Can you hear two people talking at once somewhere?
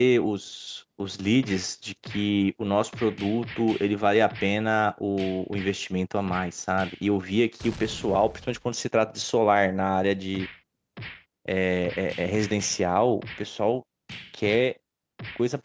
No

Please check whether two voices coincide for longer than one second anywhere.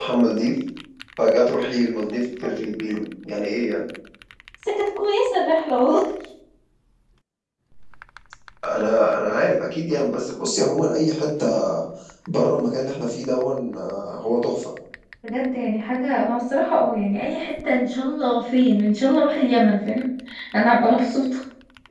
No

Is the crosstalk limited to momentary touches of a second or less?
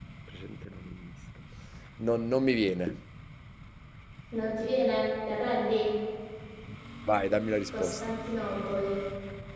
Yes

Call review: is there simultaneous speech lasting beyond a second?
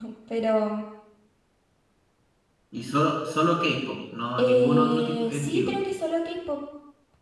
Yes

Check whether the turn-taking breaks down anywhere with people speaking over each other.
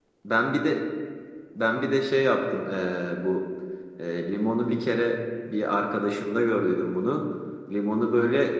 No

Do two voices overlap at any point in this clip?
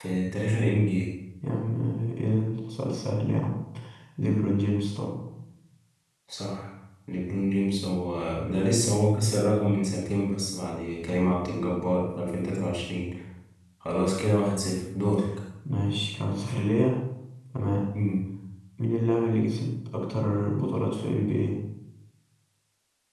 No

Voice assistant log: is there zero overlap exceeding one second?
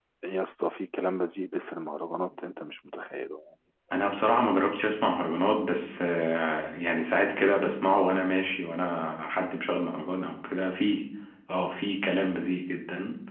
Yes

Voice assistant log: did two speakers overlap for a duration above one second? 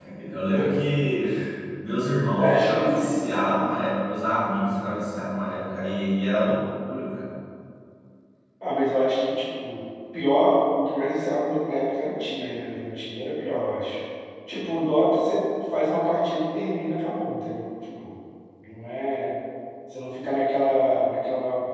Yes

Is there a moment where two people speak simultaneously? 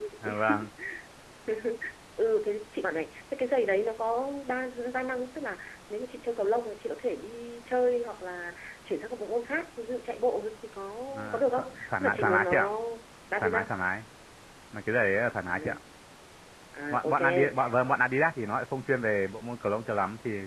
Yes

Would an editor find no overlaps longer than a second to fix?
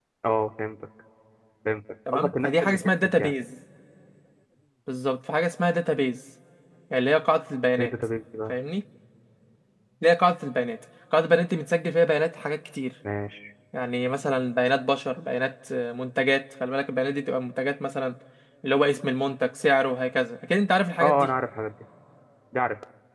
No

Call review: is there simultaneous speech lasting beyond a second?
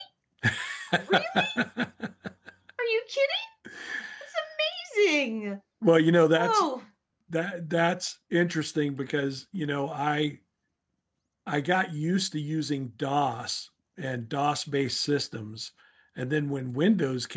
No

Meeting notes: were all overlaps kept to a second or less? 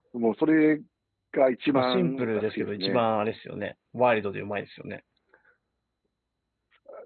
No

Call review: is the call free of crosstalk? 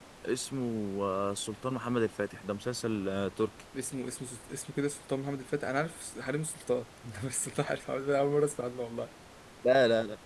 Yes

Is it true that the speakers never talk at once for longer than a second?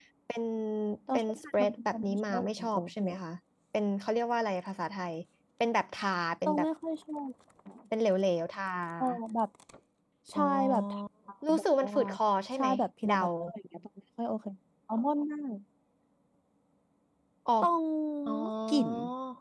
No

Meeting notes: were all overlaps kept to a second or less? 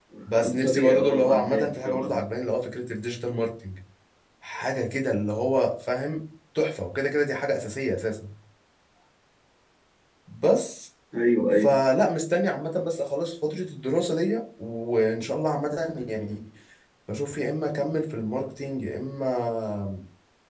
No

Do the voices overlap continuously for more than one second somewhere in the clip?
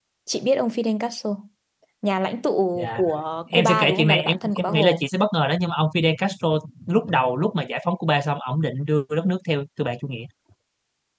Yes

